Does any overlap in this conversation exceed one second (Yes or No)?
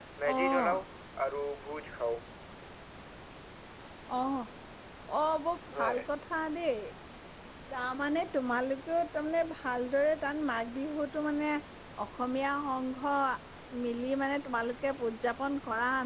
No